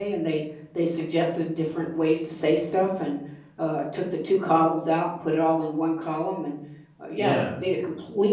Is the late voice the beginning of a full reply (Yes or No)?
No